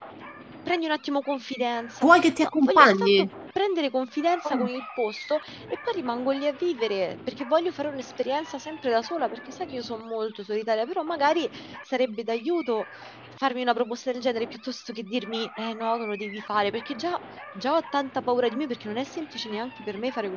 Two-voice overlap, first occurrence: 2.0 s

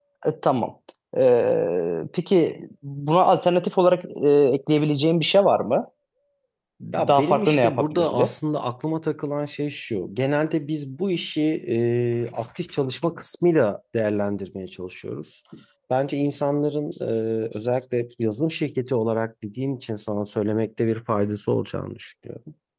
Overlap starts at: 6.9 s

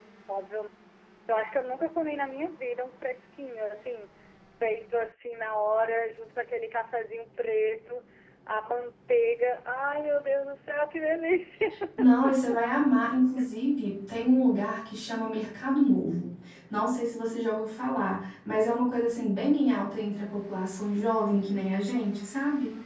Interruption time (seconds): none

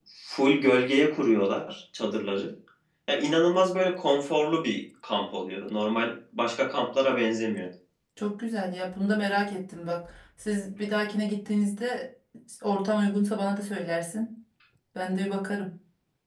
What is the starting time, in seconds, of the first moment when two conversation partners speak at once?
none

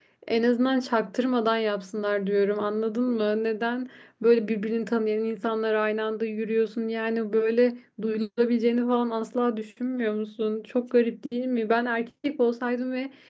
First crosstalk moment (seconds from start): none

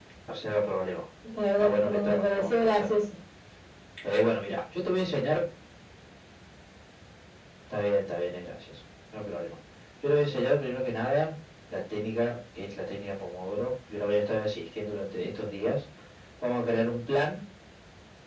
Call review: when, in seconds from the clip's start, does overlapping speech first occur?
1.6 s

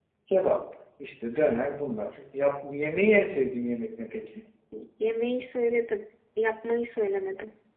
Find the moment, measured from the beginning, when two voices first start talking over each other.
none

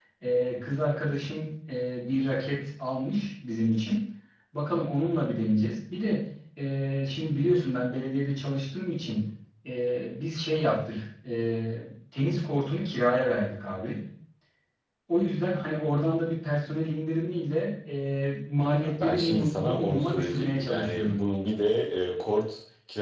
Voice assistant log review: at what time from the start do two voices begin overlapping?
18.6 s

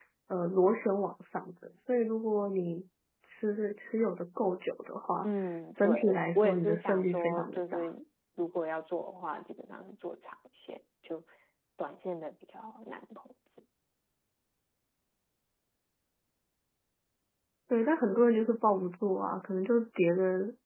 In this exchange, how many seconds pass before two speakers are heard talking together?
5.8 s

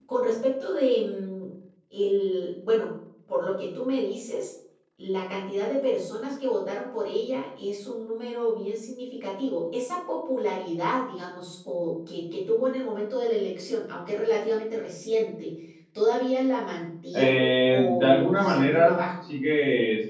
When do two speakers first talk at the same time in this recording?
17.1 s

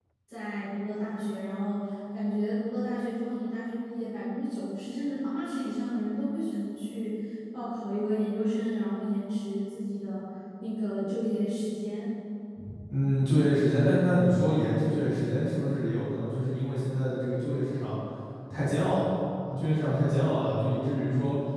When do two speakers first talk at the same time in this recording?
none

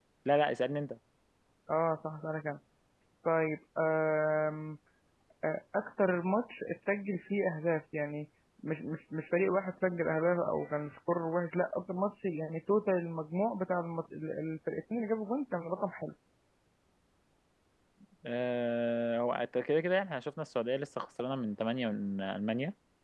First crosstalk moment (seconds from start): none

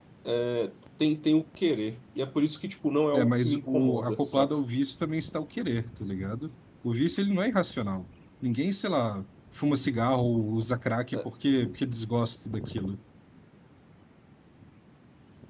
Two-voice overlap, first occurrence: 3.1 s

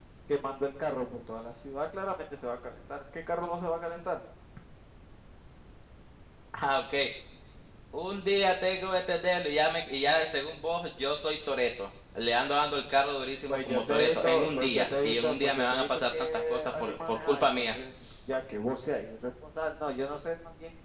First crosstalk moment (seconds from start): 13.5 s

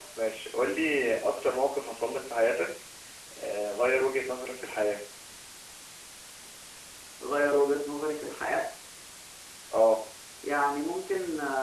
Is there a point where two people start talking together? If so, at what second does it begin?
none

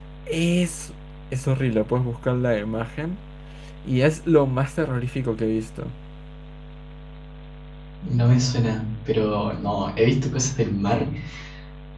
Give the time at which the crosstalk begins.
none

